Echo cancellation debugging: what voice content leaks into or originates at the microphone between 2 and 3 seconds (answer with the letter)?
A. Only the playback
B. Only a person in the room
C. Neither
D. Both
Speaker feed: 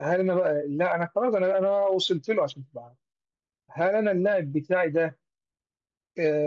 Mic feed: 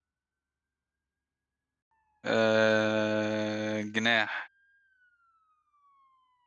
B